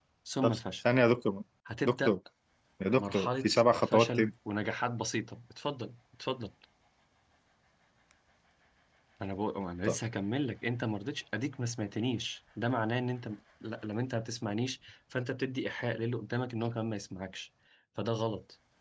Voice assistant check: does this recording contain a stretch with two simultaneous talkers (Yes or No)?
Yes